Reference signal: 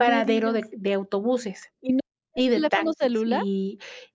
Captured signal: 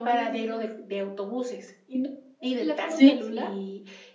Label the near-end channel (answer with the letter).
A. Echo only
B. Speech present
B